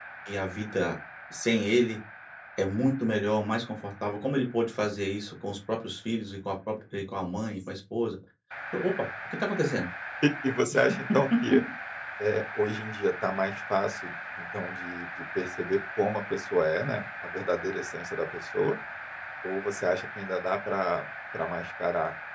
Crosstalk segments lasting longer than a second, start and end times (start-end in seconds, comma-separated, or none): none